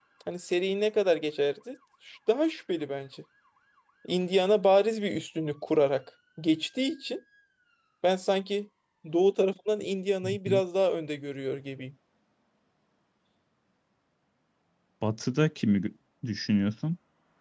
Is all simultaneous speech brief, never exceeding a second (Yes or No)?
Yes